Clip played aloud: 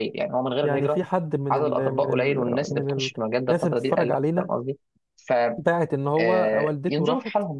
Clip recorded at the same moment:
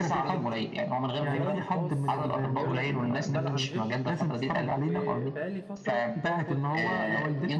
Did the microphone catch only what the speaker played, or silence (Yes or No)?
No